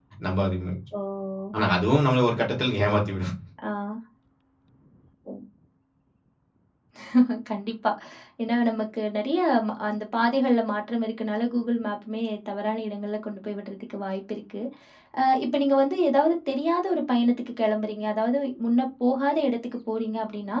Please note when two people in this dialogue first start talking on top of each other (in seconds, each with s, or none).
none